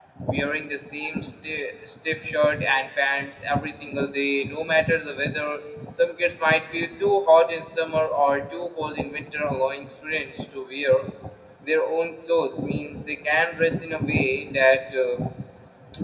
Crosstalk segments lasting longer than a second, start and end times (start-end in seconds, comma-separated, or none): none